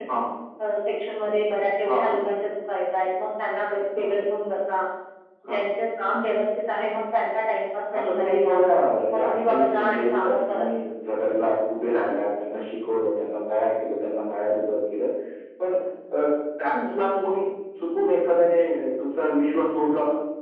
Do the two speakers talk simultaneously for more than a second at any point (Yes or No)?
Yes